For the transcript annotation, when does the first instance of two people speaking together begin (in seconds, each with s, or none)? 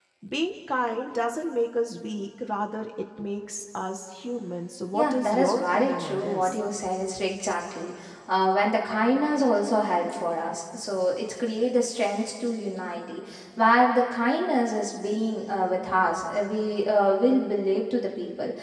4.9 s